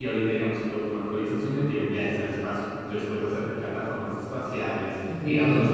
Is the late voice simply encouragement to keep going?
Yes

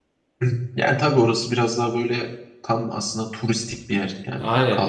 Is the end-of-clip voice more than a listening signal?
Yes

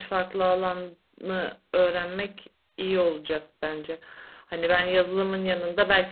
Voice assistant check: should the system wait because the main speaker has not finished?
Yes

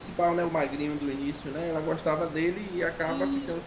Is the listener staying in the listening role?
No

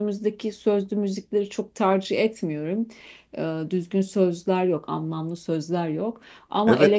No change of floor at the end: No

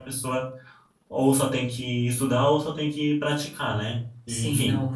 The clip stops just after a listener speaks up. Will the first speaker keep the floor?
No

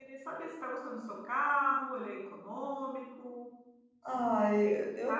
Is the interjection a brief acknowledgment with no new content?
No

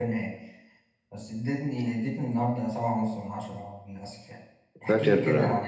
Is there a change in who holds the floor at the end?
No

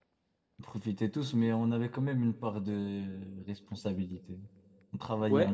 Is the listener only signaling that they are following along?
No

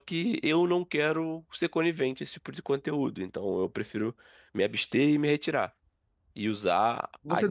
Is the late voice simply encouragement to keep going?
No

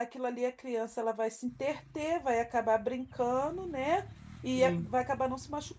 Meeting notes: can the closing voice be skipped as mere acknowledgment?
Yes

